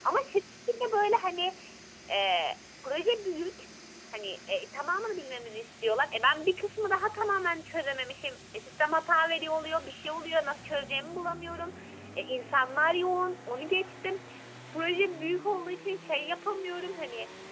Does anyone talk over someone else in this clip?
No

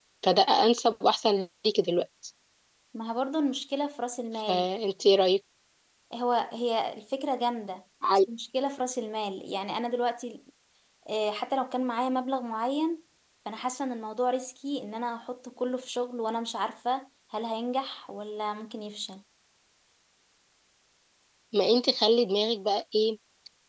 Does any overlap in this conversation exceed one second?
No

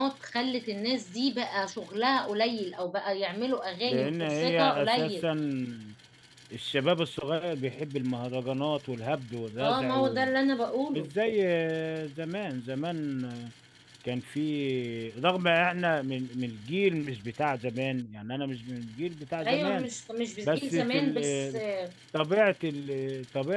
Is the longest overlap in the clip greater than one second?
Yes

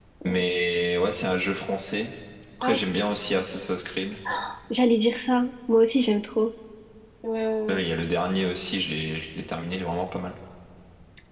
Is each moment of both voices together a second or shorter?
Yes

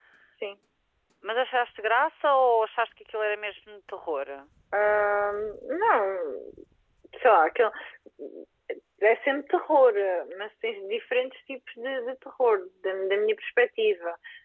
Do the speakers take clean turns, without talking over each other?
Yes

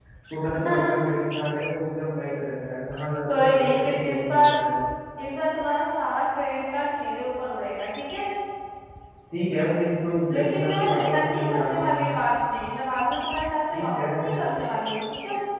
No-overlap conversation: No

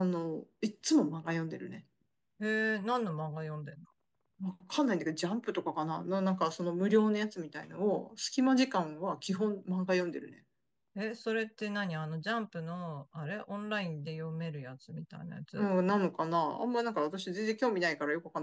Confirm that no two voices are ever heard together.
Yes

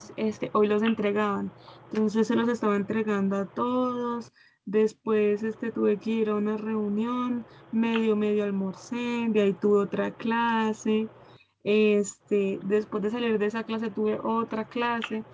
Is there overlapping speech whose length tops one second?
No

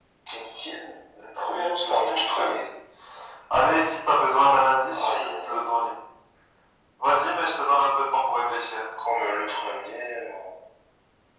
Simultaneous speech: Yes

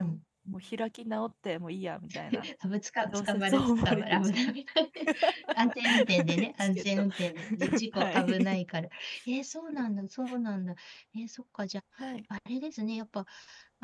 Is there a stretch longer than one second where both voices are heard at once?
Yes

